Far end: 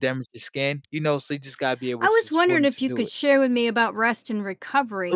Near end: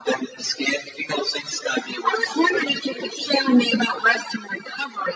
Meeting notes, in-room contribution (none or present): none